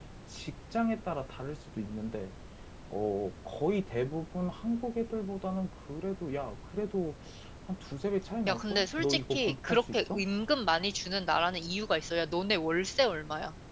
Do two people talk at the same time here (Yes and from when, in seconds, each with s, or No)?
Yes, from 8.5 s